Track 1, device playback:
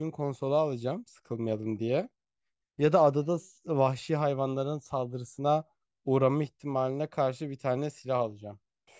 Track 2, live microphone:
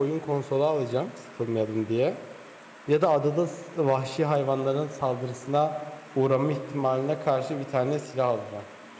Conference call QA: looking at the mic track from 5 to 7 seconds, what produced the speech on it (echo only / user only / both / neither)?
echo only